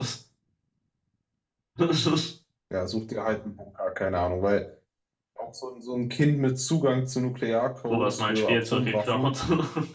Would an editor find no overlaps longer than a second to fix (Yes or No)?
No